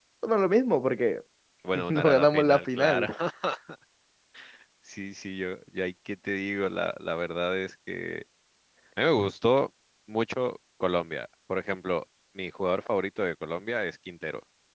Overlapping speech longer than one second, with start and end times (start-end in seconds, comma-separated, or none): 1.9-3.1